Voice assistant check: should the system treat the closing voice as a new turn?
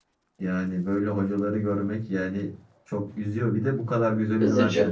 No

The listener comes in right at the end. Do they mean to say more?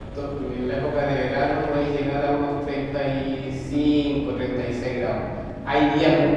No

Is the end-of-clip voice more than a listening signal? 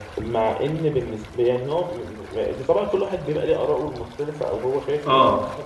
Yes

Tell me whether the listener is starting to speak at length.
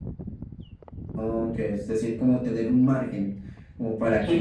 Yes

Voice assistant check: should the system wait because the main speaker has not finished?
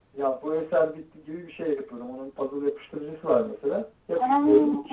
Yes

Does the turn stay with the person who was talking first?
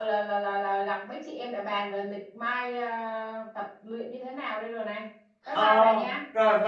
No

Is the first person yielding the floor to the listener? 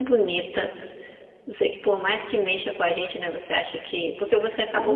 No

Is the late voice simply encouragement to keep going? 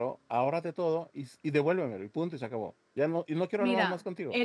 No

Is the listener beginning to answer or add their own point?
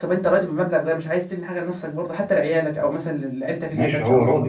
Yes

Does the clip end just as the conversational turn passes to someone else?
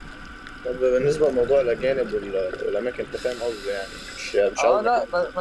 Yes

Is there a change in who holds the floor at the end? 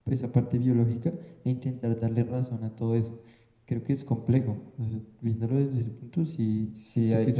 Yes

